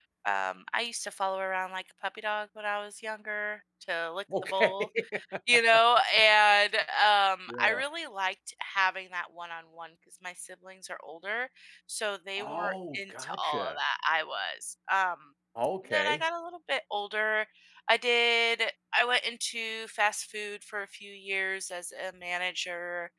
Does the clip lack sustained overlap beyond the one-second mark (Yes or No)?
No